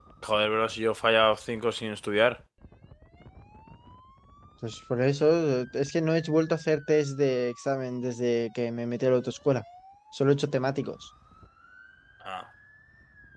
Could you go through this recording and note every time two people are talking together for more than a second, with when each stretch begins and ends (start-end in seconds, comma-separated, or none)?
none